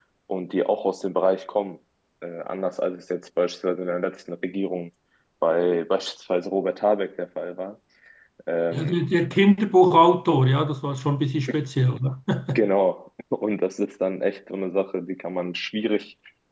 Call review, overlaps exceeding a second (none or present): none